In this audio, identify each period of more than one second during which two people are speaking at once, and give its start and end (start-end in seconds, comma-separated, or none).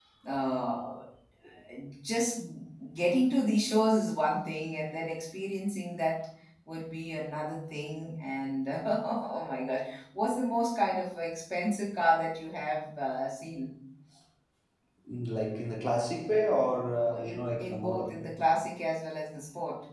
17.1-18.3